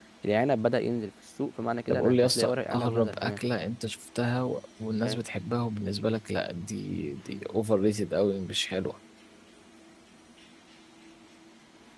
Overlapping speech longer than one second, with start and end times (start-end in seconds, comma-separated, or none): 1.9-3.4